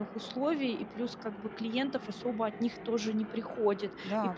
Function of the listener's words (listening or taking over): listening